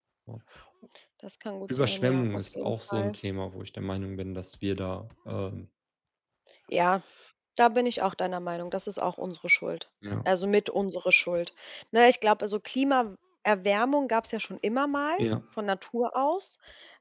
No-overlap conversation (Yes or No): No